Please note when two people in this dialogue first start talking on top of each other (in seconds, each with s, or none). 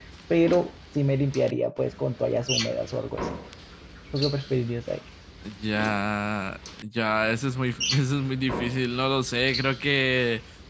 none